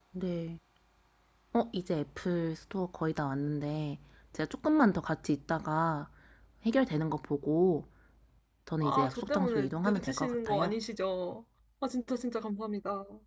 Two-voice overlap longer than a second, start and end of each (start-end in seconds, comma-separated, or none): 8.8-10.7